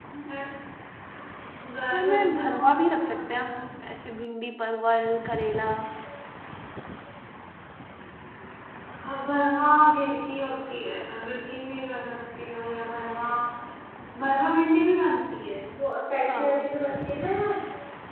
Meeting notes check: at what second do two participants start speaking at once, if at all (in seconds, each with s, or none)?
1.9 s